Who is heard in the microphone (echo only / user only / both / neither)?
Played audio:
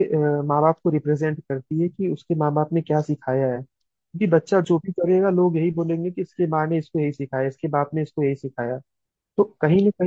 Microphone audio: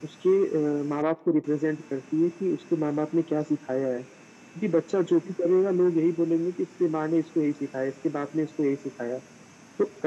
echo only